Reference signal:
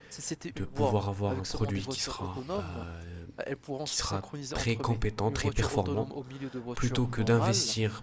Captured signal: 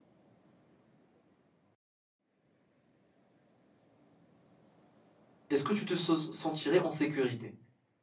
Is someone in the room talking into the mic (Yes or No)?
Yes